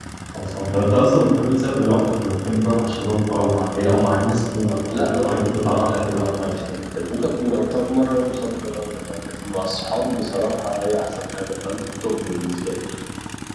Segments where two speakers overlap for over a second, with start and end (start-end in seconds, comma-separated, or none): 4.9-6.5